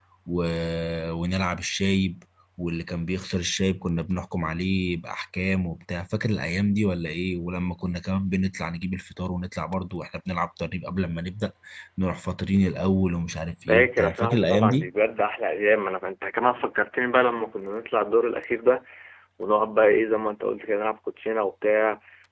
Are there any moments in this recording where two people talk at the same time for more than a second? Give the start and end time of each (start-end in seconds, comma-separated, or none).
13.7-14.9